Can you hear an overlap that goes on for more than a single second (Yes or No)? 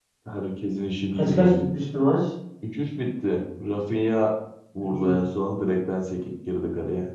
No